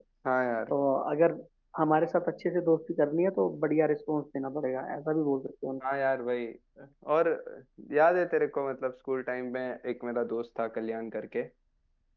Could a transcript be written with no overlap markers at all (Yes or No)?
Yes